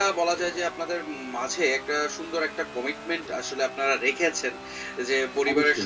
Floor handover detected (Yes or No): No